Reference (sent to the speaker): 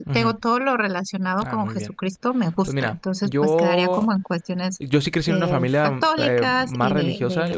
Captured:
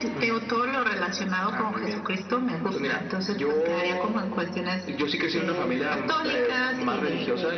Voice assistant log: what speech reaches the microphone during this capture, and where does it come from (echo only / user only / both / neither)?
echo only